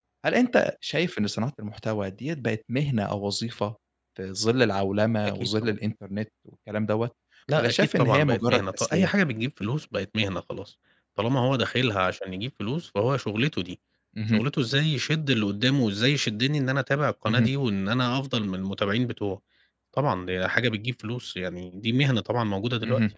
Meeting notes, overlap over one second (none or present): present